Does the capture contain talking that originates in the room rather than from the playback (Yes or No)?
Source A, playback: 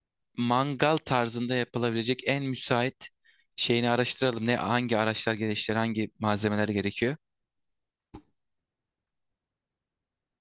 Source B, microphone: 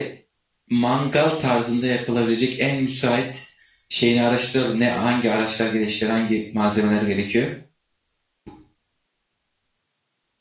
No